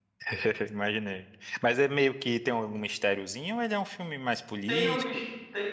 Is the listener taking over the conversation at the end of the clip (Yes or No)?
Yes